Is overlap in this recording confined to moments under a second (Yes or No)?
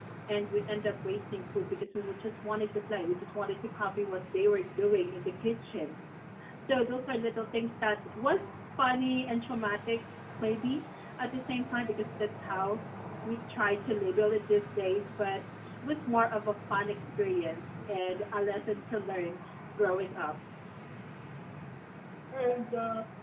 Yes